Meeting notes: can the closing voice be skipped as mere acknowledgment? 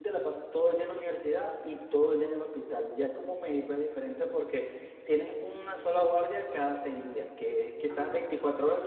Yes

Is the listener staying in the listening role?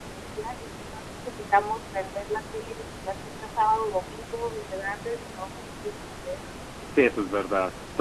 No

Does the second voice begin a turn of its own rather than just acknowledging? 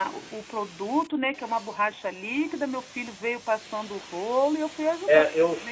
Yes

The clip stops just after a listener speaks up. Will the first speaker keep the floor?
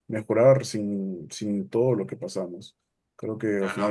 Yes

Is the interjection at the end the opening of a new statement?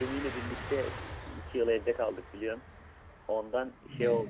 No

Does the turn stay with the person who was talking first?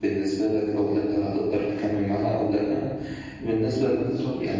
Yes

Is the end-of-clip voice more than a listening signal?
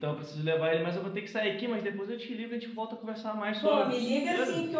Yes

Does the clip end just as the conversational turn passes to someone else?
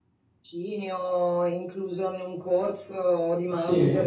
Yes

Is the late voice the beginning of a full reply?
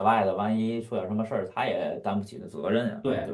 Yes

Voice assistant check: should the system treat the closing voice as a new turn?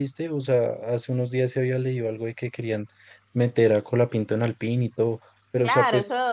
Yes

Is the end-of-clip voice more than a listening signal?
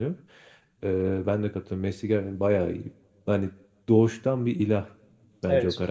No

